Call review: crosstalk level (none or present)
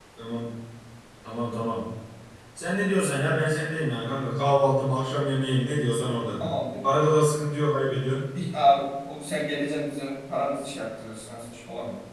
none